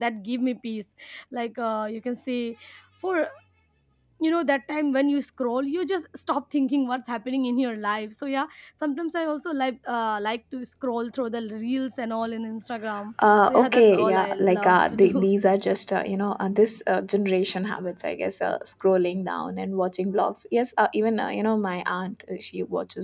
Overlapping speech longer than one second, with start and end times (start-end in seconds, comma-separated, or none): 13.5-15.3